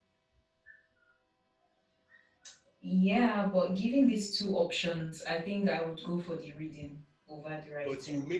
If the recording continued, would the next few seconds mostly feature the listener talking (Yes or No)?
Yes